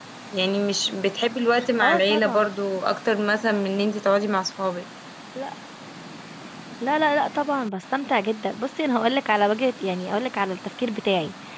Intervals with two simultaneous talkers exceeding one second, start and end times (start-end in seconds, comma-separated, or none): none